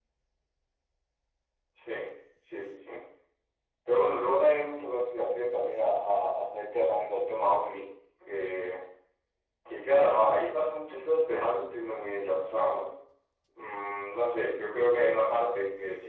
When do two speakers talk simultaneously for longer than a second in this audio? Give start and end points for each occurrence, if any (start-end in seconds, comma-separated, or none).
none